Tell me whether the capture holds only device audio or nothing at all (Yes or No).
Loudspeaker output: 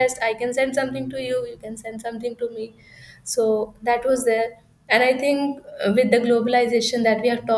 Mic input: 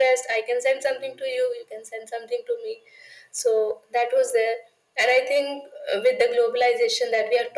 Yes